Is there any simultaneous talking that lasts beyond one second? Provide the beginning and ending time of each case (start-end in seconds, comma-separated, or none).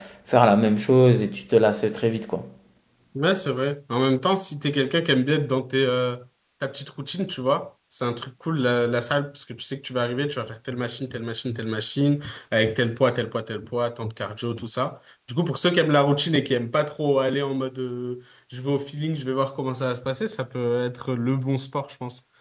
none